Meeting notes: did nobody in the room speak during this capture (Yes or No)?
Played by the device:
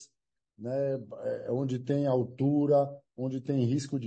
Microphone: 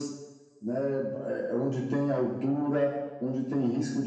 Yes